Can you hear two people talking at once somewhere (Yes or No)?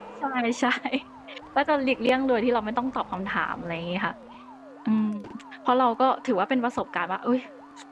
No